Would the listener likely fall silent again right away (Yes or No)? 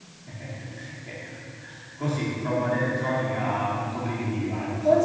No